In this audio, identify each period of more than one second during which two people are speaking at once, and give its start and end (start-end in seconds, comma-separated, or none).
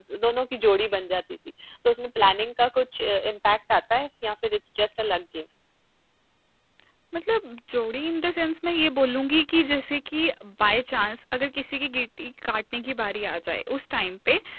none